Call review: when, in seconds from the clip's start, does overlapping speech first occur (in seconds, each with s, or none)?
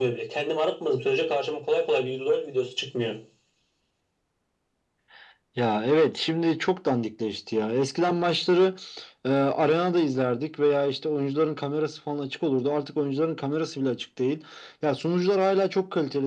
none